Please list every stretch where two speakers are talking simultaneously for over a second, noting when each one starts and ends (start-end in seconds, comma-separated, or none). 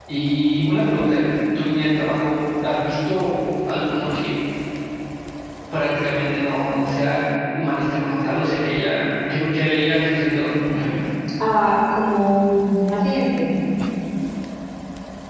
none